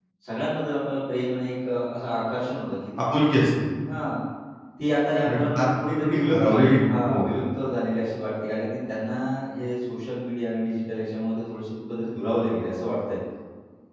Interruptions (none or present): present